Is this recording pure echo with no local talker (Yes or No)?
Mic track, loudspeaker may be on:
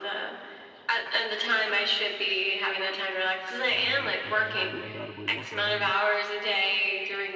No